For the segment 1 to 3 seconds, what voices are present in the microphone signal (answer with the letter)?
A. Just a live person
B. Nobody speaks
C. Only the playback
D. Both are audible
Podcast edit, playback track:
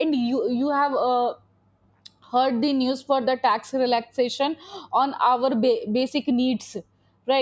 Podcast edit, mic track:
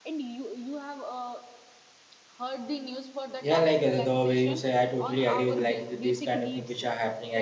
C